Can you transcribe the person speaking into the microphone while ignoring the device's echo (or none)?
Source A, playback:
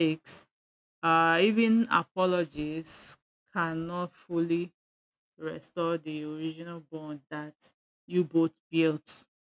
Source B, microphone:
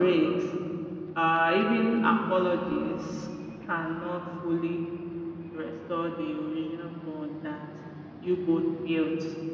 none